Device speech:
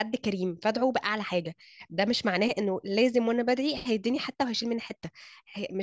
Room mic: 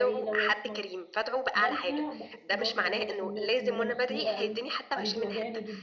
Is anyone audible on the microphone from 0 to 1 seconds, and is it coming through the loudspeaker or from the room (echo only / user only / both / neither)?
both